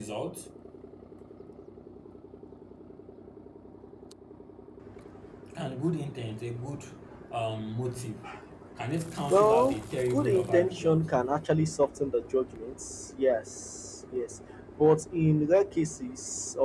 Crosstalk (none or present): present